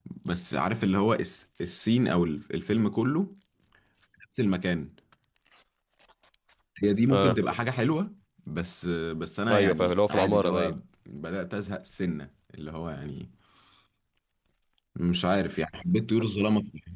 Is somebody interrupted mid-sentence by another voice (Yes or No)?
Yes